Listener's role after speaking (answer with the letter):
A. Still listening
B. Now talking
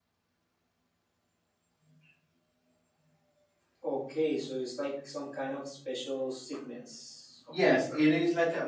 B